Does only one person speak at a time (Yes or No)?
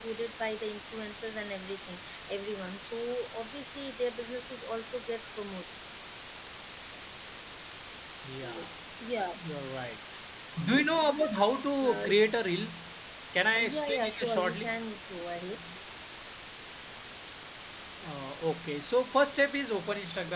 No